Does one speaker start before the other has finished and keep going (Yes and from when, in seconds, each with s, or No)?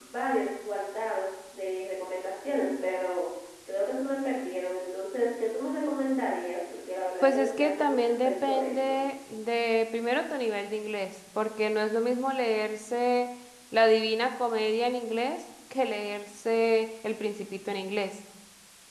Yes, from 7.2 s